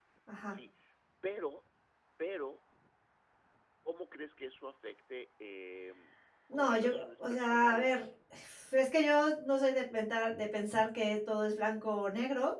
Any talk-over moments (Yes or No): Yes